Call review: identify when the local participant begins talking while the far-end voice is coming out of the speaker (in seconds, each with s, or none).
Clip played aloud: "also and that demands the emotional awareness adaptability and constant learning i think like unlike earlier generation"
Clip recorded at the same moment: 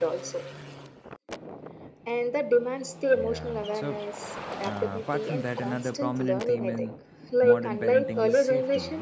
3.1 s